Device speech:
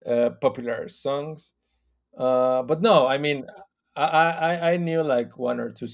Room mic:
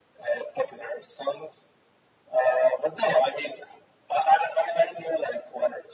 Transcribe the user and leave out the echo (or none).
none